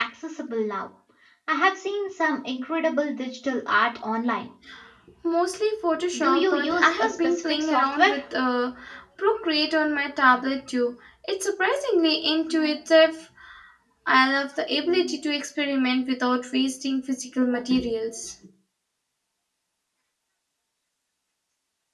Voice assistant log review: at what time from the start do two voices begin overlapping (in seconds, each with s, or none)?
6.1 s